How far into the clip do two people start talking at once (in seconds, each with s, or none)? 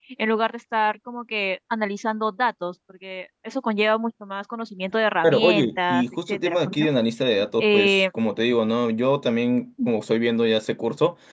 5.2 s